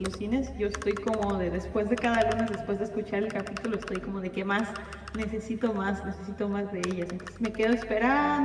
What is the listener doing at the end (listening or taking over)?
listening